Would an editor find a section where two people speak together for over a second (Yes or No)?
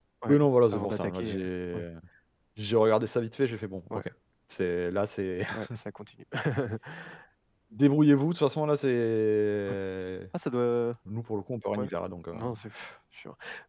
Yes